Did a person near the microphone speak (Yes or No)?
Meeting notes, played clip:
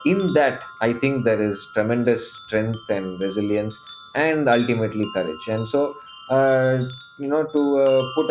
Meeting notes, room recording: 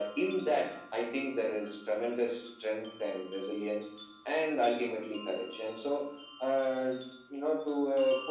No